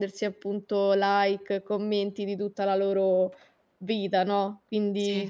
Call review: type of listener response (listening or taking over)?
listening